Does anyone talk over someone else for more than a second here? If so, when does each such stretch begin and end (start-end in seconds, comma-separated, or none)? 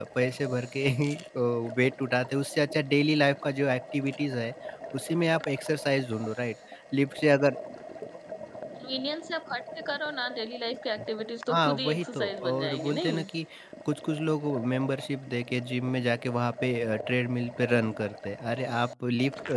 11.5-13.2